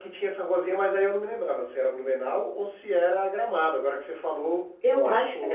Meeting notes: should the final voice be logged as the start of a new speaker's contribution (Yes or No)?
Yes